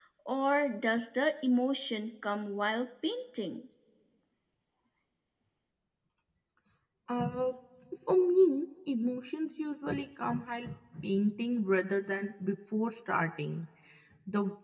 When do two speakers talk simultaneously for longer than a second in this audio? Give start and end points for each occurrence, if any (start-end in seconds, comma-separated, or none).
none